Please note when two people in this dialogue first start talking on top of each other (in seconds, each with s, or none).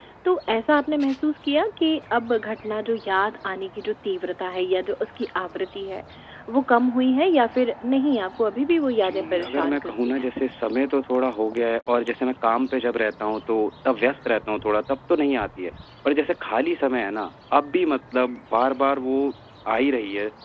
9.0 s